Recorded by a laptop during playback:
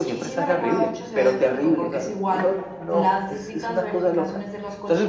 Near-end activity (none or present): present